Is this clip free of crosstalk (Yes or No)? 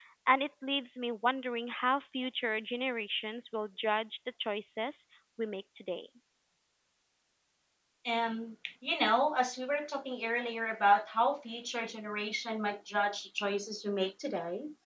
Yes